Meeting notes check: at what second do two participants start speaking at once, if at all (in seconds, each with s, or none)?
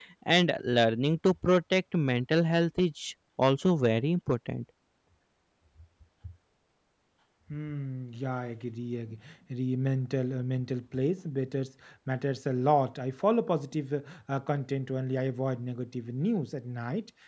none